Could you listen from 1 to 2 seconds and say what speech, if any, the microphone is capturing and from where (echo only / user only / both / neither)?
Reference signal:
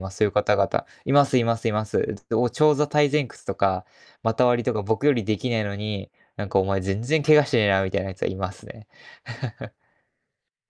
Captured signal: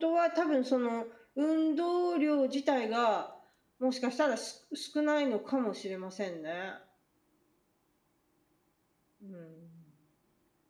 user only